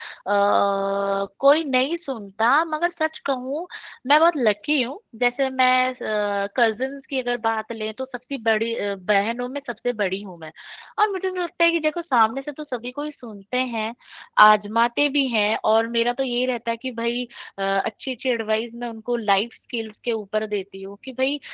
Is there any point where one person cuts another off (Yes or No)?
No